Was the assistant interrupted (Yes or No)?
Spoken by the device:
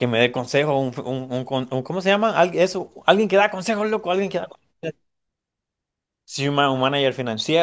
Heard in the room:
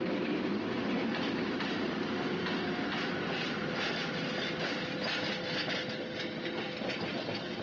No